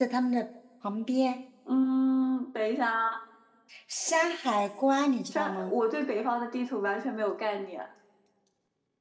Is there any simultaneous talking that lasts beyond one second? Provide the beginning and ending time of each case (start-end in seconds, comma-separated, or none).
none